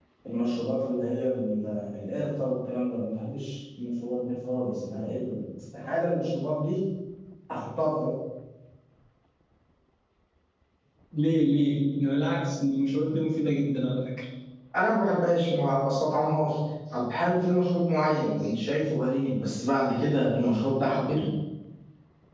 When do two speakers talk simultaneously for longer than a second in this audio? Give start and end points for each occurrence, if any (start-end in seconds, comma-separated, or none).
none